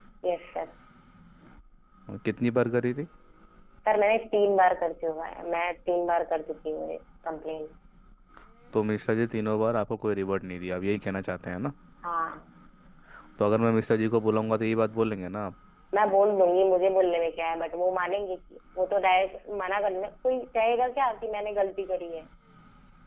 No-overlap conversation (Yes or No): Yes